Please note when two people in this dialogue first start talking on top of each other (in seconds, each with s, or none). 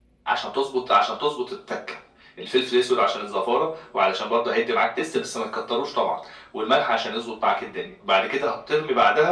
none